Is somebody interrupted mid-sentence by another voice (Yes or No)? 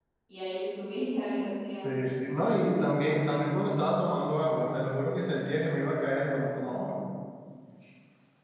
No